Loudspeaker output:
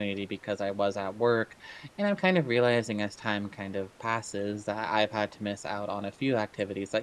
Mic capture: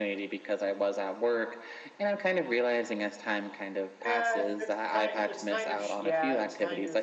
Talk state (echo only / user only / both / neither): both